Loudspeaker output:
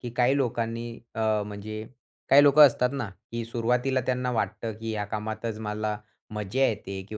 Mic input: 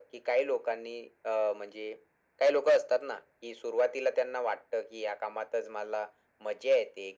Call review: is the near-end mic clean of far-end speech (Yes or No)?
No